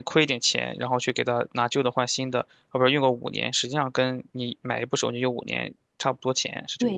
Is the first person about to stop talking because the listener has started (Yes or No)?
Yes